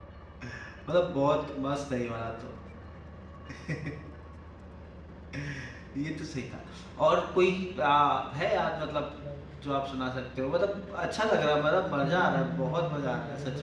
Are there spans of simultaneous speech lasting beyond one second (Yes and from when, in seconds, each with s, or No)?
Yes, from 12.0 s